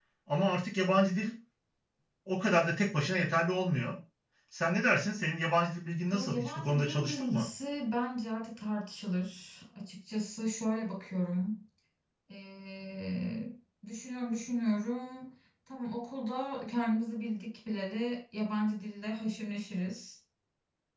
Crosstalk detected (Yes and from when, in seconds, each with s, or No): Yes, from 6.1 s